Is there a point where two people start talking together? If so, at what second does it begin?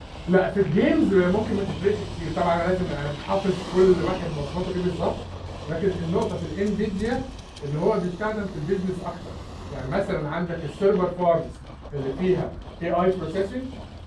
none

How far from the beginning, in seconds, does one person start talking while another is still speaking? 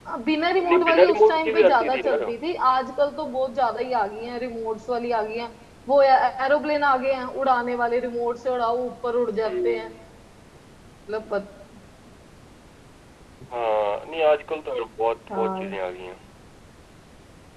0.6 s

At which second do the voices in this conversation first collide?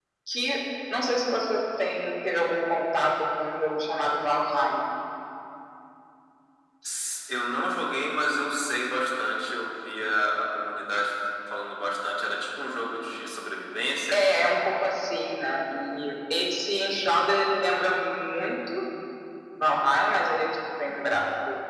none

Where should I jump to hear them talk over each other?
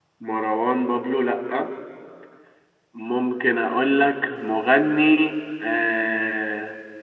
none

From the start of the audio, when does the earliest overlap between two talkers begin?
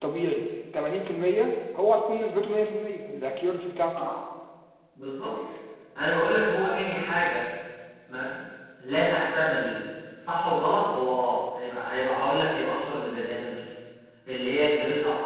none

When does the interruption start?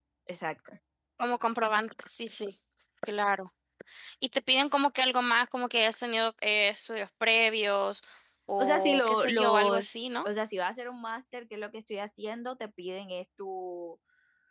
8.6 s

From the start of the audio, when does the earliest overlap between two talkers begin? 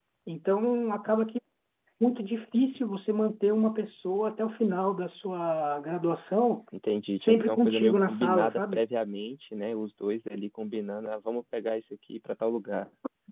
7.2 s

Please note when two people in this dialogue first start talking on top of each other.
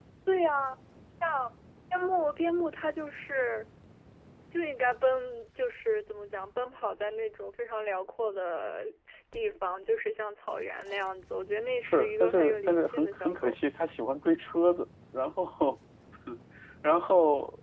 11.8 s

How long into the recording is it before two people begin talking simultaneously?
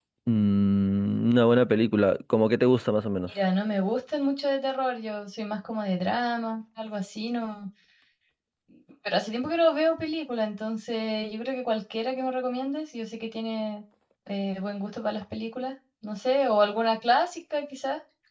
none

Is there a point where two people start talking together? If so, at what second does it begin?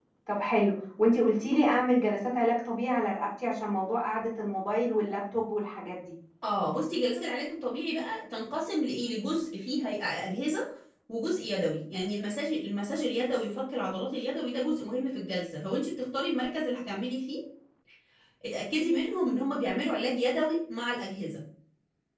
none

